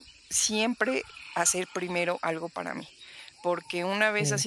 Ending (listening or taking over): listening